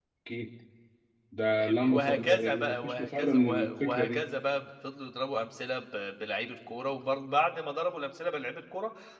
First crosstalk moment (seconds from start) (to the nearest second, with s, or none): 2 s